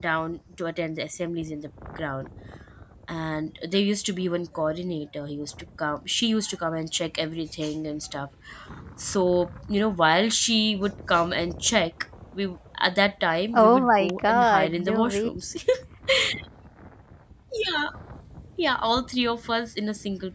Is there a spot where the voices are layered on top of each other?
Yes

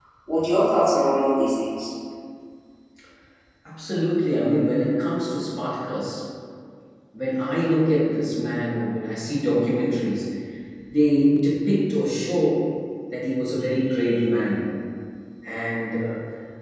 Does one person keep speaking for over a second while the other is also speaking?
No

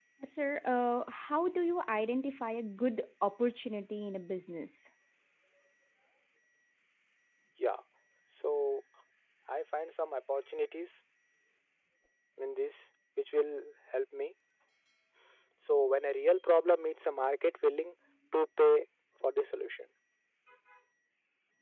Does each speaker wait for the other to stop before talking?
Yes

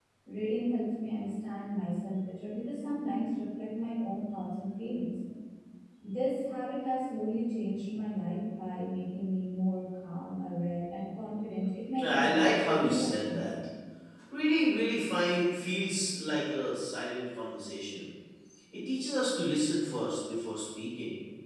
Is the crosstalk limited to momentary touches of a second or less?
No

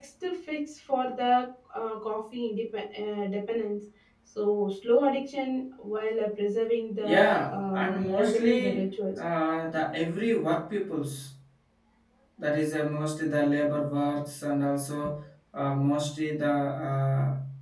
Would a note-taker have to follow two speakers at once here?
Yes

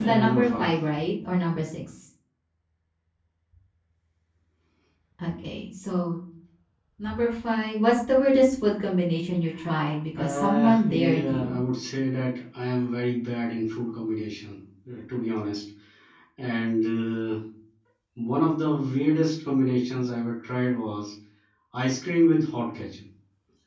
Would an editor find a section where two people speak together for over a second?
Yes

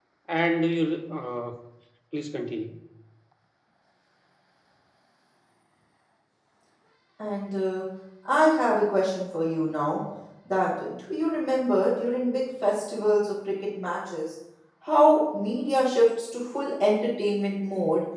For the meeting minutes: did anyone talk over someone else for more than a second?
No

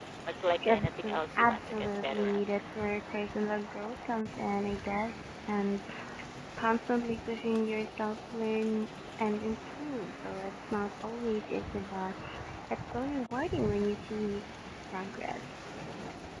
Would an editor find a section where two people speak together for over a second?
Yes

